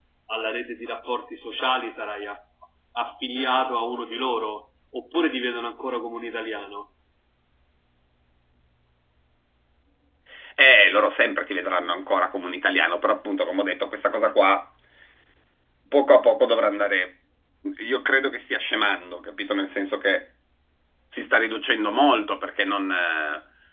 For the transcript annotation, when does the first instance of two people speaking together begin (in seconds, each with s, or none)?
none